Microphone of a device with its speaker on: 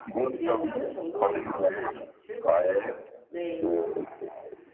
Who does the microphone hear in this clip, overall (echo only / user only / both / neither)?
both